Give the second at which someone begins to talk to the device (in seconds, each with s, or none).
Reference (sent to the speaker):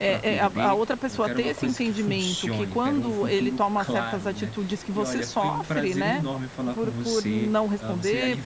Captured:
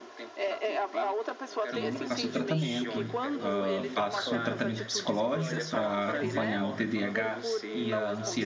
1.7 s